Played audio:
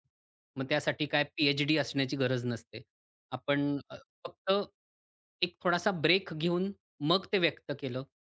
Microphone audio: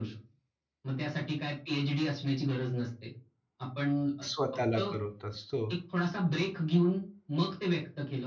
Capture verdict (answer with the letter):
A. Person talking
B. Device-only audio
A